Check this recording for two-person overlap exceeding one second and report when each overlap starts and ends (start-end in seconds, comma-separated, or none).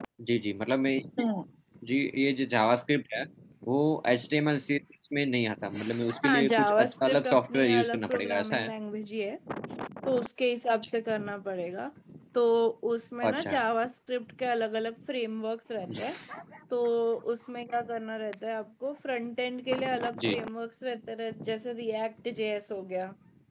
6.2-8.7